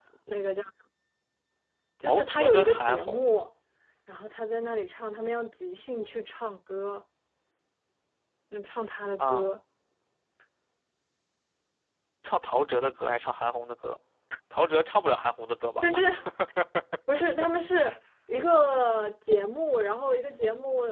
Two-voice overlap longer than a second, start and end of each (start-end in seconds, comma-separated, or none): 2.1-3.3